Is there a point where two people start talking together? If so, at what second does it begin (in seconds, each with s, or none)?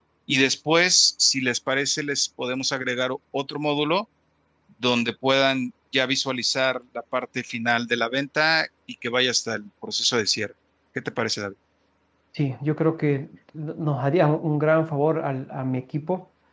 none